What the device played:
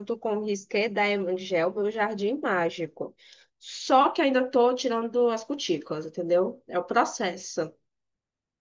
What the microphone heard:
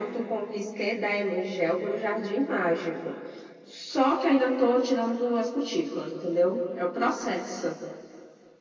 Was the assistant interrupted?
No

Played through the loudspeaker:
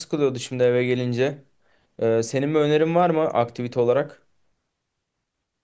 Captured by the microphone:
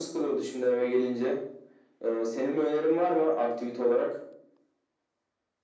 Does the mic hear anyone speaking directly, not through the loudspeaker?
No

